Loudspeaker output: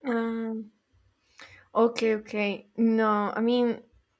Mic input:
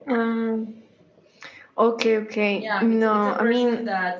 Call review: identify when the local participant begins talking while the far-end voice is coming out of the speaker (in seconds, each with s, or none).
2.5 s